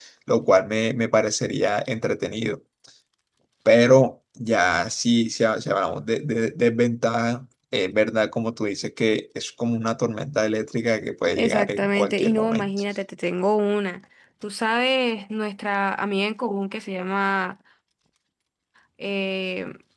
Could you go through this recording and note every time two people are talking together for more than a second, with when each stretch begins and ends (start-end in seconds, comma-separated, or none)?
11.4-12.7